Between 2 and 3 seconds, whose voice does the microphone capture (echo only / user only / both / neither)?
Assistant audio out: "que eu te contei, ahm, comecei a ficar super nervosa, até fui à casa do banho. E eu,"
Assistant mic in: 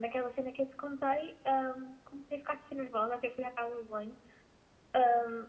echo only